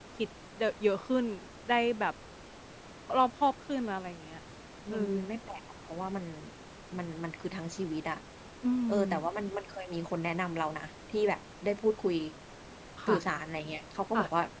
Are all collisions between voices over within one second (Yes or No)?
Yes